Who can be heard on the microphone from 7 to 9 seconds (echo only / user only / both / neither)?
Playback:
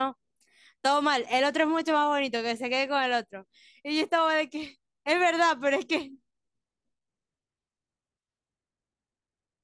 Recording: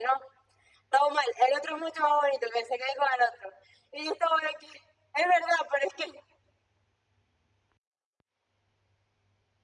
neither